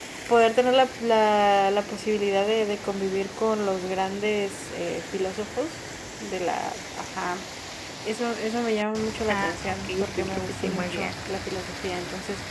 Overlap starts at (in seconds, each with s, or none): 9.3 s